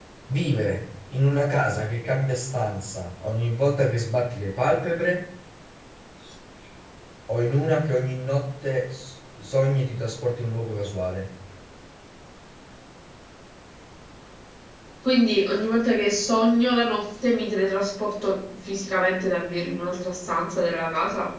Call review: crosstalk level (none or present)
none